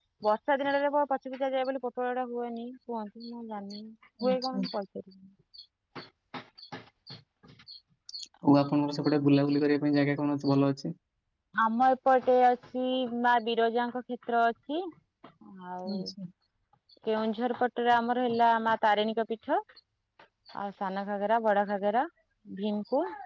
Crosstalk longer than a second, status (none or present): none